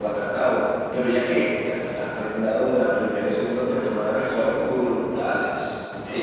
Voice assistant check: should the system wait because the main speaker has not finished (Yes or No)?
No